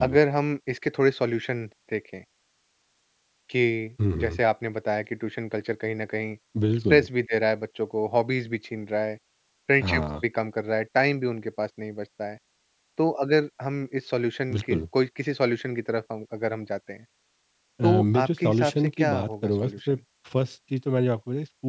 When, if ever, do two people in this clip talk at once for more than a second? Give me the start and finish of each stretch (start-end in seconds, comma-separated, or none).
17.8-19.9